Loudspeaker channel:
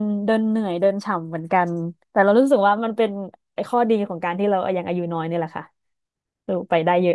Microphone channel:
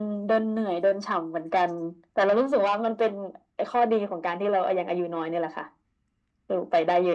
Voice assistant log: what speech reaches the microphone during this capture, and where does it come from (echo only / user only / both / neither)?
echo only